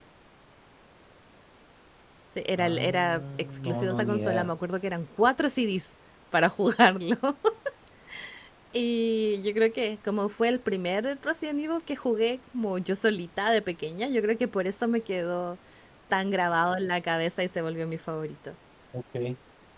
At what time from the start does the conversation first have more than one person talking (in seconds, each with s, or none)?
2.6 s